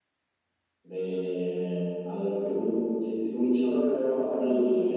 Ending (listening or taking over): taking over